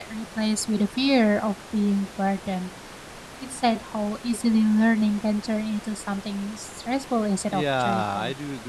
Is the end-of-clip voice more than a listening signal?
Yes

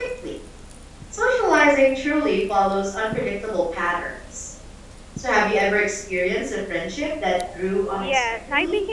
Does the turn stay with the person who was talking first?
No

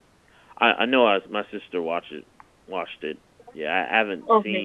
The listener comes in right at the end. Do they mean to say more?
No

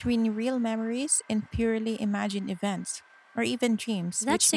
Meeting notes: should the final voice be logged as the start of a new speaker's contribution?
Yes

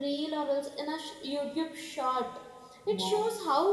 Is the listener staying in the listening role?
Yes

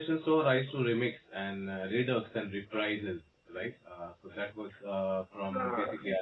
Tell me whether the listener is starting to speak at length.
No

